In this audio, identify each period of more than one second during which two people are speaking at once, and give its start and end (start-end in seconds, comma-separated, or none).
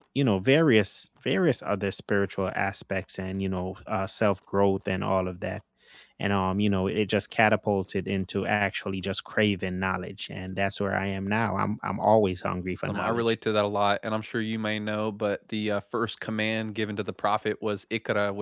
none